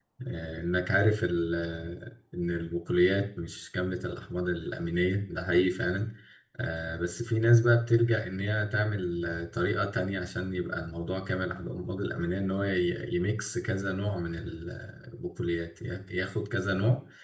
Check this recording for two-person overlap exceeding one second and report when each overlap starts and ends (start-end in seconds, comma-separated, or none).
none